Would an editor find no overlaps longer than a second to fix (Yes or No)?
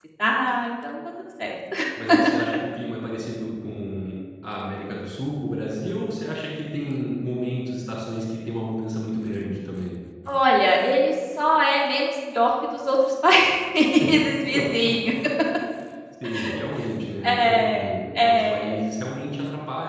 No